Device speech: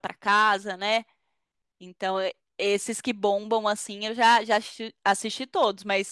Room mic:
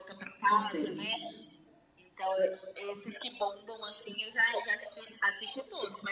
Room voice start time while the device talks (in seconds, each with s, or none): 0.5 s